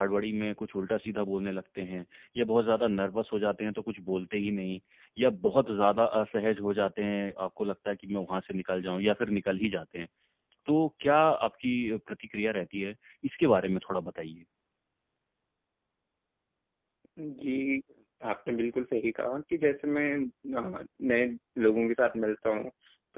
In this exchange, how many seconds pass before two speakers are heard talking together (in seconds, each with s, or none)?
none